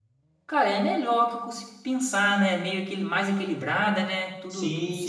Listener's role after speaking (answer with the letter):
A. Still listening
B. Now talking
B